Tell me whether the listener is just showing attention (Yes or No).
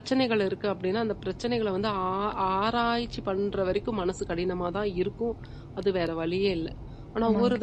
Yes